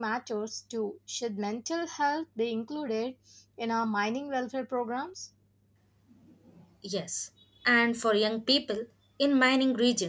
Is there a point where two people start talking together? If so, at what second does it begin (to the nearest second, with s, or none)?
none